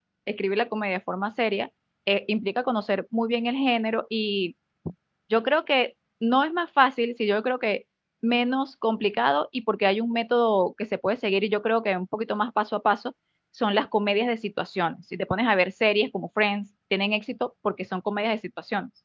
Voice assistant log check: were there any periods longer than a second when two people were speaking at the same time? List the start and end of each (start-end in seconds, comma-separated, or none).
none